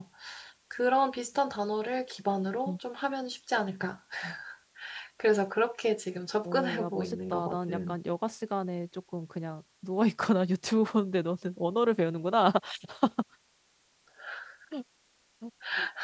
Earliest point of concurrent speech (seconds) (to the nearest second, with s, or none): 6 s